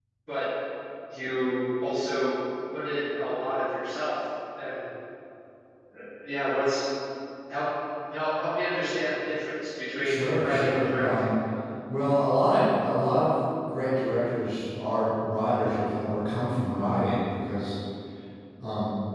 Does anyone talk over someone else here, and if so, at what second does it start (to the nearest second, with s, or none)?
10 s